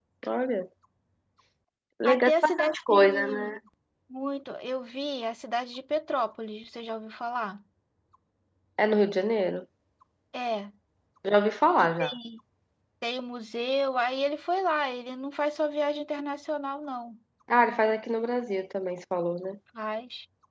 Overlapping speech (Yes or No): Yes